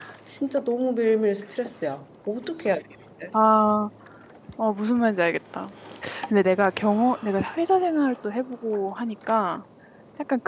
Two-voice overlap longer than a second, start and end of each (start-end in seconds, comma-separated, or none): none